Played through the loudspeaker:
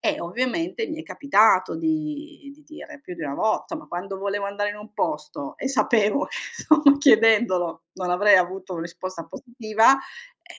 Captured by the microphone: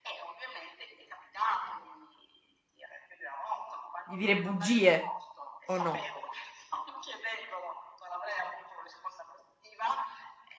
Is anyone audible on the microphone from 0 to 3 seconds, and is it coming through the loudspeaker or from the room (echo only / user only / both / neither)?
echo only